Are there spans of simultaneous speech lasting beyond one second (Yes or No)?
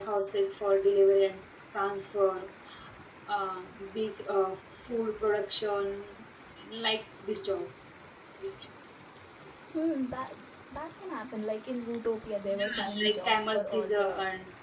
Yes